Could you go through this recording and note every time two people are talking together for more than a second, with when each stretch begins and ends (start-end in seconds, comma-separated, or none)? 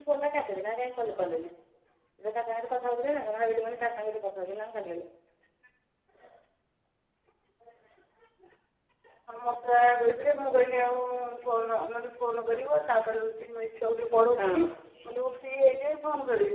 none